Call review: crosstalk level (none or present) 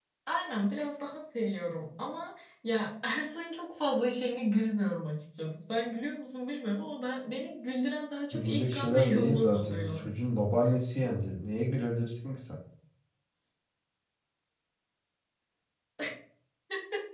present